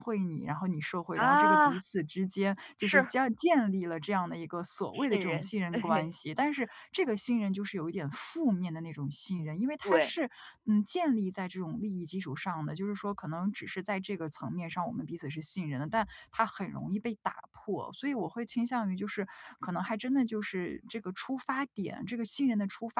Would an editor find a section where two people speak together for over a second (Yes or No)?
Yes